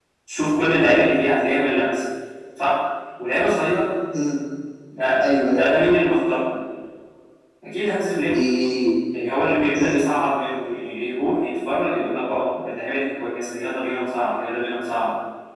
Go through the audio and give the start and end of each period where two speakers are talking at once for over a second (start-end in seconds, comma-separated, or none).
none